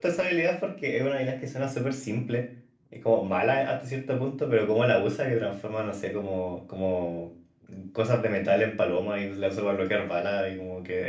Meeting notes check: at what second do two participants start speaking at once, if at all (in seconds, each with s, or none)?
none